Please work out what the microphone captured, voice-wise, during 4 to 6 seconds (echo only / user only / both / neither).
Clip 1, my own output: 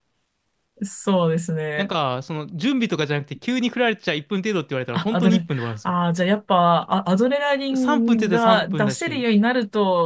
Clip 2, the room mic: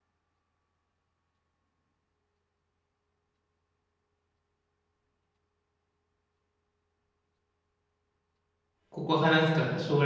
neither